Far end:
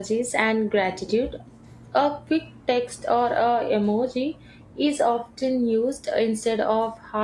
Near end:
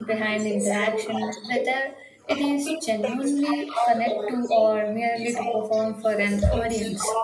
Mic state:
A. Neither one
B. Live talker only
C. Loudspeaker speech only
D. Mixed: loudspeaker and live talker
D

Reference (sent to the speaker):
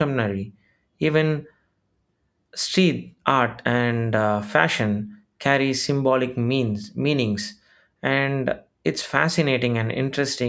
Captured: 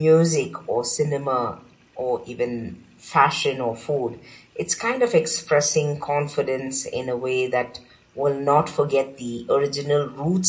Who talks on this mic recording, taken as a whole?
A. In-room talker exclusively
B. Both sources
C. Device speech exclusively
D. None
A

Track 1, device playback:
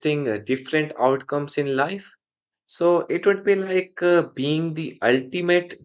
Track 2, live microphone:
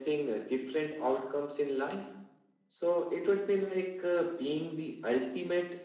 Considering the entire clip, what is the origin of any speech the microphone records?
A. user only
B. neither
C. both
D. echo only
D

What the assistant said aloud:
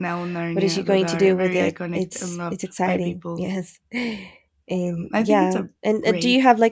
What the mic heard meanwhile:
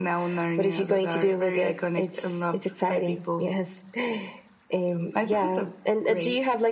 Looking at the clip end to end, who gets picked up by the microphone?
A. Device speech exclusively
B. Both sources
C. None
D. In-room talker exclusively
A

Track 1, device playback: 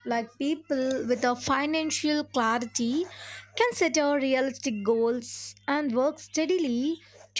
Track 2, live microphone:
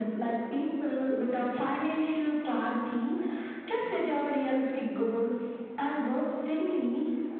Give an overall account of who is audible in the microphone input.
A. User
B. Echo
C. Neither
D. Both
B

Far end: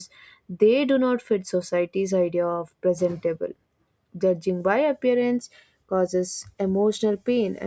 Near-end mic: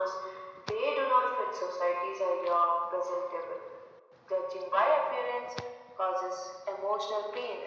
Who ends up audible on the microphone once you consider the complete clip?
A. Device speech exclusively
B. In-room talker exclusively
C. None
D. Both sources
A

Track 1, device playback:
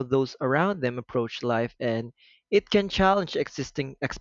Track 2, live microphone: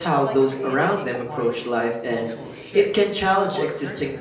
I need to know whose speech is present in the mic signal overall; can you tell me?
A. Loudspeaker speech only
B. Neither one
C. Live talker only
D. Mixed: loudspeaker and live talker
D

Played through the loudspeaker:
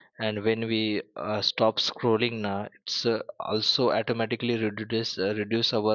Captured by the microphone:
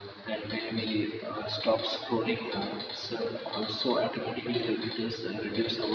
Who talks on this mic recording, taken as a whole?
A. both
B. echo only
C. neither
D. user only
B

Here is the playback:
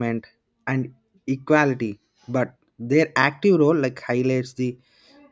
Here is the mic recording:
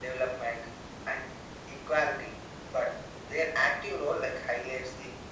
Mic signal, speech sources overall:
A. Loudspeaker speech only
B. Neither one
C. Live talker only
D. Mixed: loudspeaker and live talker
A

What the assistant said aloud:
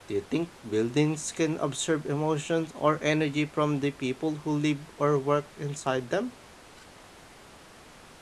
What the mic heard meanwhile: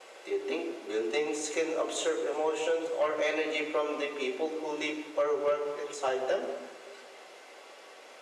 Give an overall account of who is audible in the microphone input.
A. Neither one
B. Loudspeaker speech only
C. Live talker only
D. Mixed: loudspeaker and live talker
B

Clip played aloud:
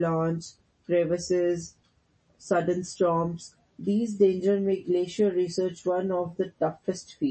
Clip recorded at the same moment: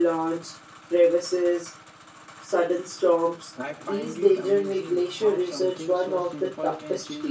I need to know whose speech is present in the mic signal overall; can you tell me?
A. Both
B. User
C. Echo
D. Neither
A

